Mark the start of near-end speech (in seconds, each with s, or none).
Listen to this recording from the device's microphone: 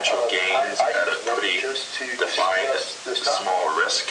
none